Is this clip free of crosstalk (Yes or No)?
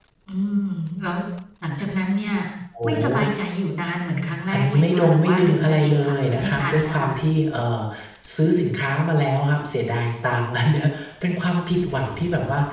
No